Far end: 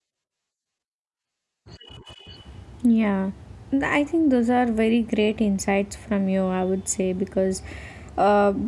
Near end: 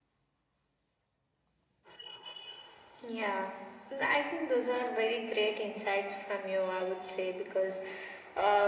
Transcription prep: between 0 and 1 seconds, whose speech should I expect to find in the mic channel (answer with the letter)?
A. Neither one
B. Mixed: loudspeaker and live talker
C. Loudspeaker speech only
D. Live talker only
A